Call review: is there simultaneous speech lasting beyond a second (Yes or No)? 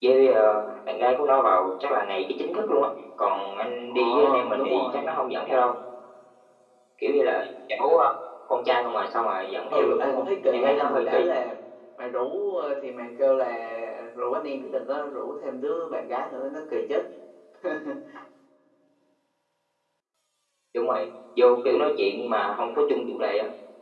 Yes